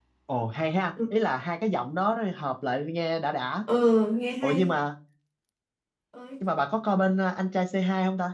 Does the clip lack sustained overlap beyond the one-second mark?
Yes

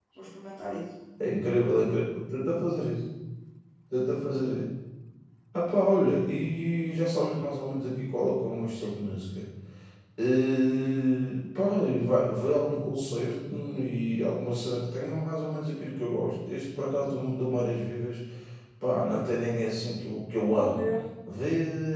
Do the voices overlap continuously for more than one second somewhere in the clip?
No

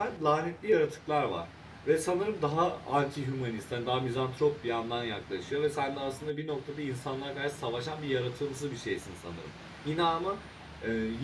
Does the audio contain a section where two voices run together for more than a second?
No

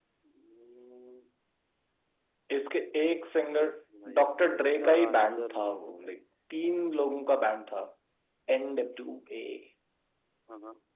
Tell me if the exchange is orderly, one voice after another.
No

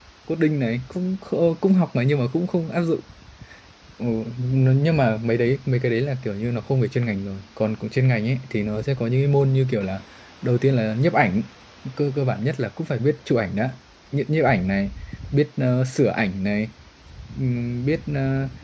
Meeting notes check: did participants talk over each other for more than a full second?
No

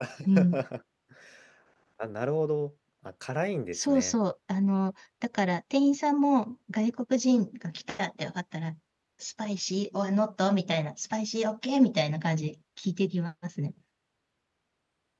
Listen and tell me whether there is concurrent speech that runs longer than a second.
No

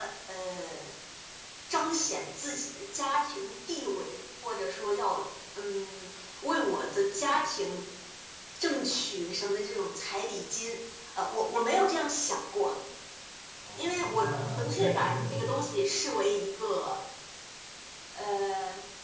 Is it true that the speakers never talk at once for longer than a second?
No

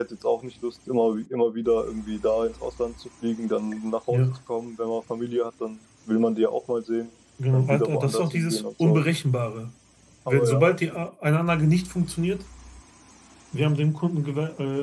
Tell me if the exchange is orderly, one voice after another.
No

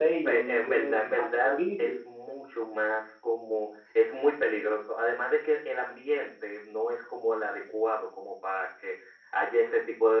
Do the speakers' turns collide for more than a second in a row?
Yes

